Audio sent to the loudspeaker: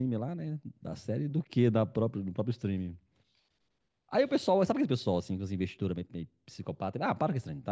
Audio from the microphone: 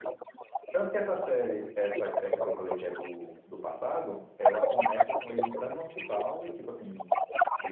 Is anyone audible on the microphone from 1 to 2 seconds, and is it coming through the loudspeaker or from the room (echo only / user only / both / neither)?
both